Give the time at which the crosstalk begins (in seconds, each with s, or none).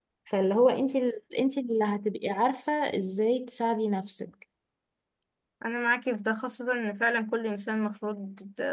none